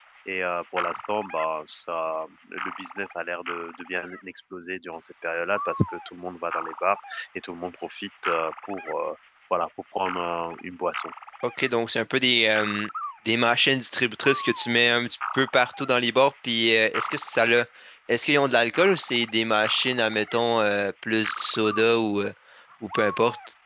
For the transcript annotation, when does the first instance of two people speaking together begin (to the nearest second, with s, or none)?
none